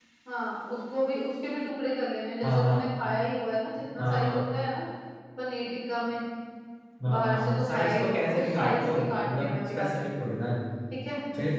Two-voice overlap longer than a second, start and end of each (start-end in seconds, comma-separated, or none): 7.1-10.1